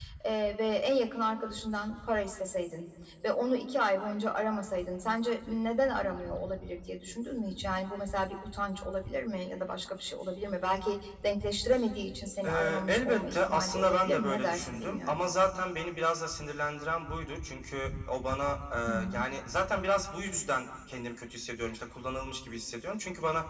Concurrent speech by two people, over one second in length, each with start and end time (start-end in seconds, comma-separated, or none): 12.4-15.2